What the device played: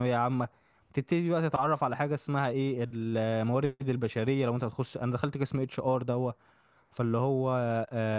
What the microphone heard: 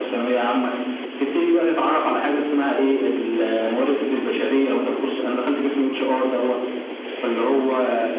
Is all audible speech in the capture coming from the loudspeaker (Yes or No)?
Yes